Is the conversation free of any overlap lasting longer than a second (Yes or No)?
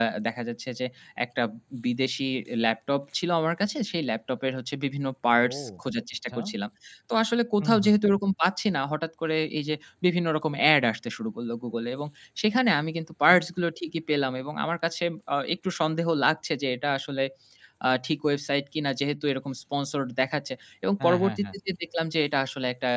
Yes